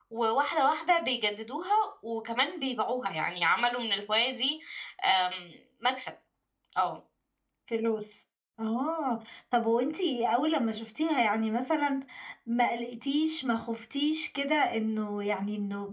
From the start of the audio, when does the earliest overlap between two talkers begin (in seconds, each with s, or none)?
none